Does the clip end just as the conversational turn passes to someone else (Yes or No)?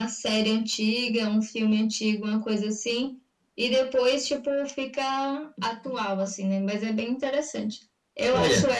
No